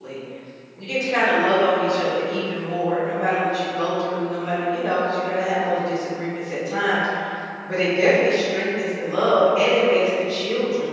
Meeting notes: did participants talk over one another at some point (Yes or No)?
No